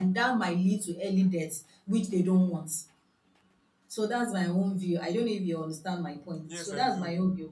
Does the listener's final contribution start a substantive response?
Yes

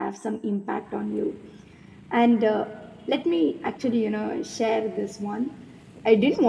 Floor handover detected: No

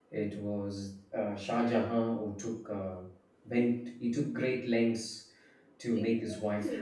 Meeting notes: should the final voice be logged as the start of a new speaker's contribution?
Yes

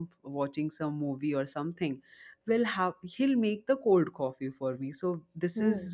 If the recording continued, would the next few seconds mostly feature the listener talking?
No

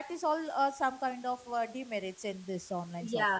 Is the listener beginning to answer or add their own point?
Yes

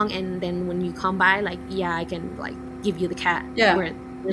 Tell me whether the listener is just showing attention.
No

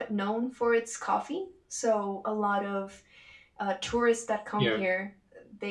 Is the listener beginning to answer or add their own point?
No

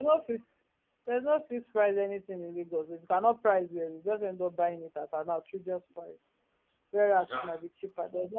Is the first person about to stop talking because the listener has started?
No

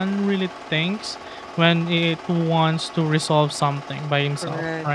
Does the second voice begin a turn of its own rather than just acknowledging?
Yes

